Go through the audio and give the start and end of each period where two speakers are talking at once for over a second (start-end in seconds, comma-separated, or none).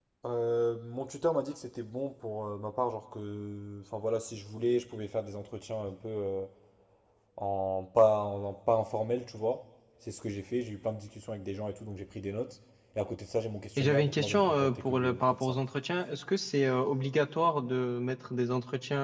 13.8-15.6